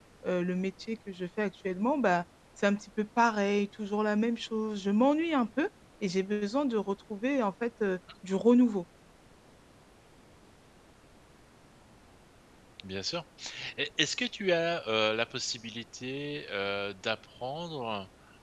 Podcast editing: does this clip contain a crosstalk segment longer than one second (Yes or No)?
No